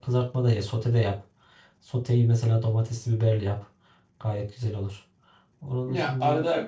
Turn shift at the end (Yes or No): Yes